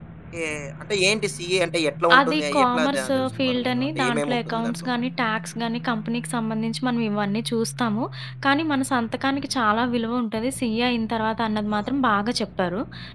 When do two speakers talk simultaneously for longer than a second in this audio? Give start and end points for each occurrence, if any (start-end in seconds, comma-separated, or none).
2.2-4.7